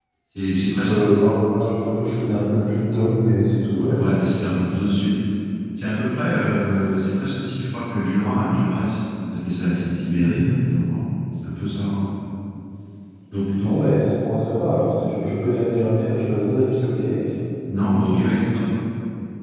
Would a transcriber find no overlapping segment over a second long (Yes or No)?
Yes